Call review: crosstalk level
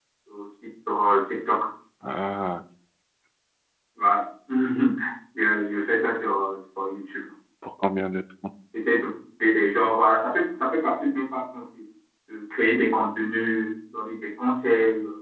none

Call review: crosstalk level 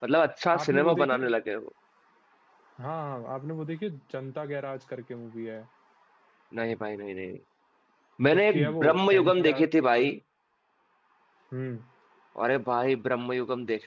present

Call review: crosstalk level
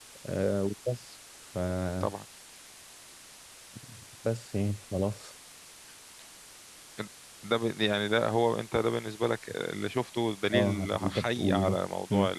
present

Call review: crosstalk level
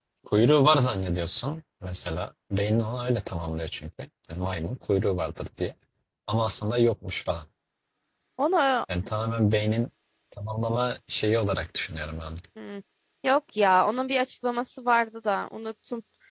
none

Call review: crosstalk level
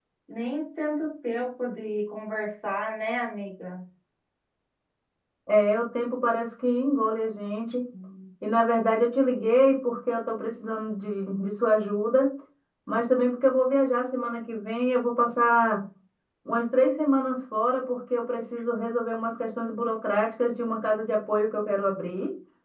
none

